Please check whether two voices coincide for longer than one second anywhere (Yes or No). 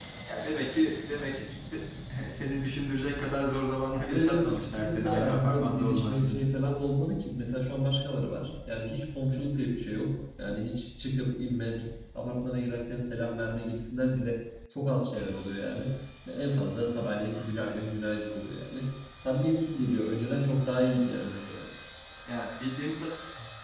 Yes